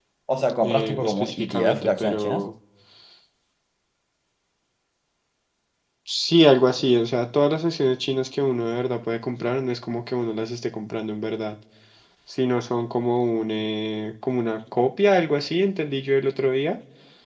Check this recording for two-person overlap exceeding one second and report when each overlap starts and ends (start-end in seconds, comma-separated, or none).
0.6-2.4